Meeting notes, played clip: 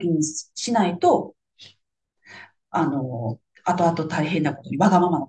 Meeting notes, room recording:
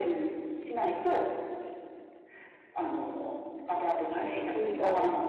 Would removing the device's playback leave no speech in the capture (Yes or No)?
No